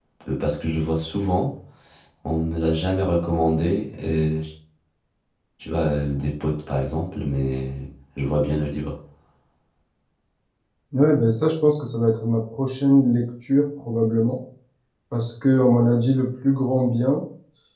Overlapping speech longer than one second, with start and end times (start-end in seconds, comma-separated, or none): none